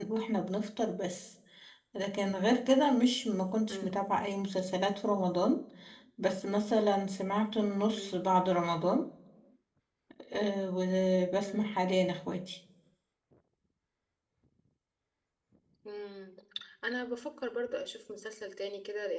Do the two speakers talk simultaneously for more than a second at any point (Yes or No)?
No